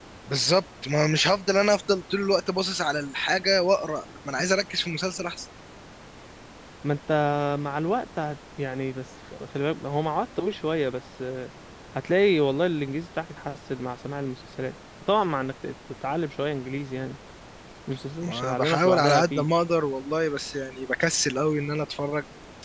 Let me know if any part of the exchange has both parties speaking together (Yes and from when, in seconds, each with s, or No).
Yes, from 18.2 s